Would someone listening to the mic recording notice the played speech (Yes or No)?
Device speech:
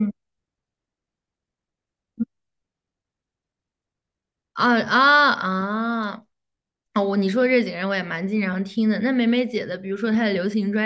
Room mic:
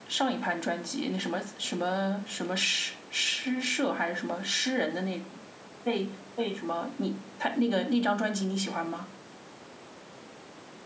No